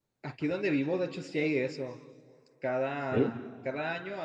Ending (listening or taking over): listening